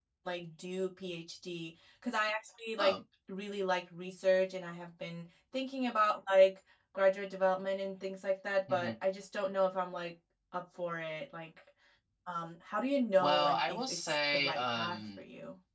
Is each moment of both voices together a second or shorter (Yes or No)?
No